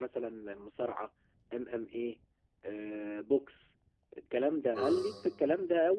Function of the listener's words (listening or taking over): listening